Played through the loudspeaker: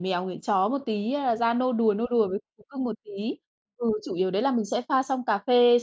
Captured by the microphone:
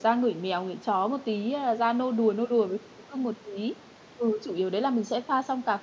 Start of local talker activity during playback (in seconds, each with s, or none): none